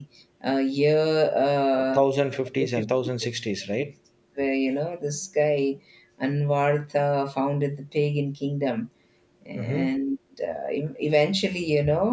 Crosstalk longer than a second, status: none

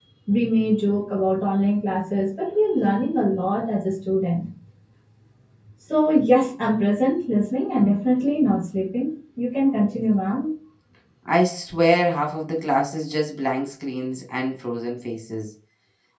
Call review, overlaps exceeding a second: none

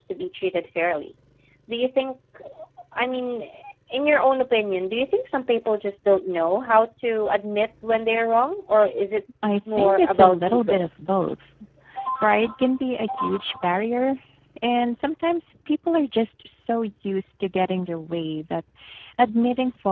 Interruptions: present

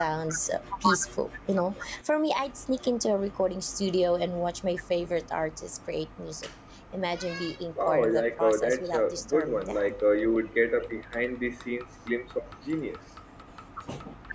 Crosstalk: present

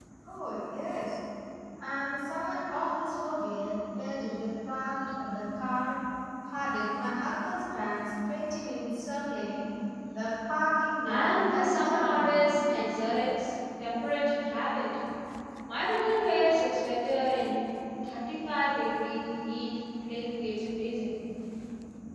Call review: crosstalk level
present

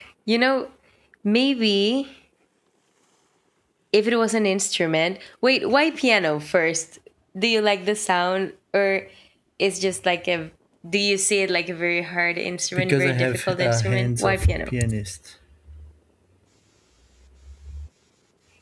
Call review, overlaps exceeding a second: present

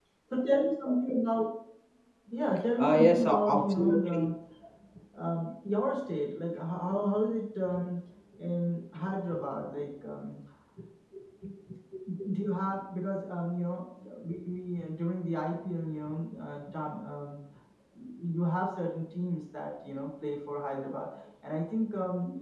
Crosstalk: present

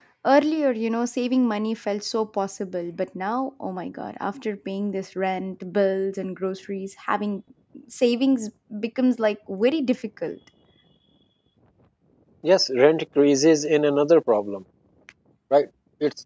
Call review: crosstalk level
none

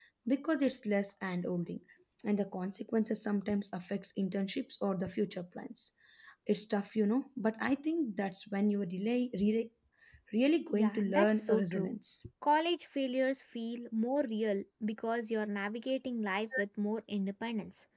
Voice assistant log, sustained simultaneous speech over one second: present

